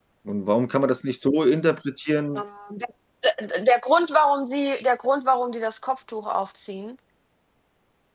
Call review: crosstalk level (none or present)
none